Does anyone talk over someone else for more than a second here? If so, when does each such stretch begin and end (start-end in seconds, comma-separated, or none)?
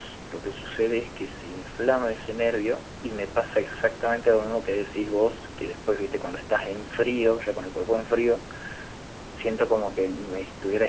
none